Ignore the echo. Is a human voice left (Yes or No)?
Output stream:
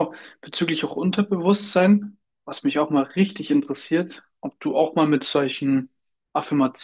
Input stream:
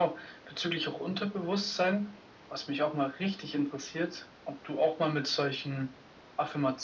No